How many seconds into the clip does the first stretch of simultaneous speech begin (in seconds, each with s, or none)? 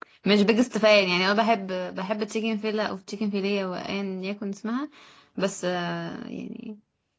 none